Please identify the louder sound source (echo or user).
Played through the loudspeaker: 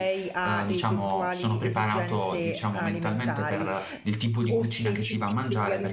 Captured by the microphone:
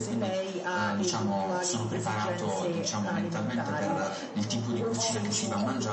echo